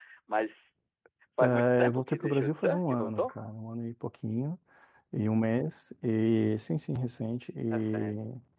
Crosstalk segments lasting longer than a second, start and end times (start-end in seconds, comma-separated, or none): 1.4-3.3